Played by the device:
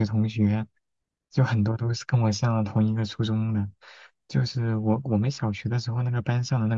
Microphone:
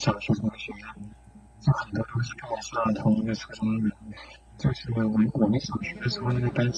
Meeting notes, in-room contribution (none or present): present